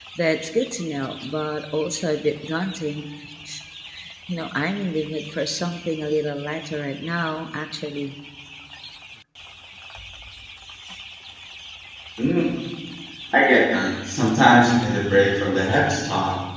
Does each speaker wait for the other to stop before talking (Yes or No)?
Yes